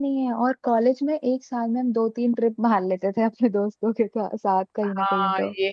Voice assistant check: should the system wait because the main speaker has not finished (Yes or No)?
No